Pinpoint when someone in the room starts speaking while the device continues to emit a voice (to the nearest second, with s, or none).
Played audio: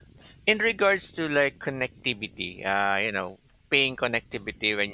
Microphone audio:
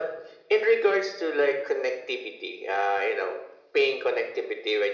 none